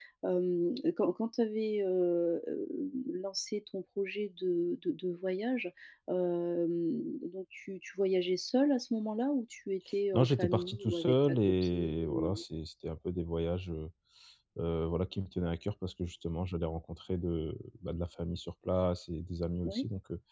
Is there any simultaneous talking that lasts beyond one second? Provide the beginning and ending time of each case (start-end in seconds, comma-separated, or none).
10.2-12.4